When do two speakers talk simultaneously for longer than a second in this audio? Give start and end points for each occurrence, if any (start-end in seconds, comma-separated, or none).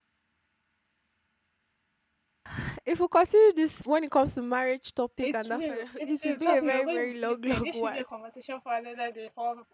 5.2-8.0